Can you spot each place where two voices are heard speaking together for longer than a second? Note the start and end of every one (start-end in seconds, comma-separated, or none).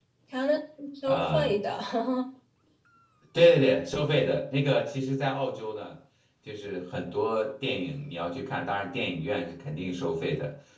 none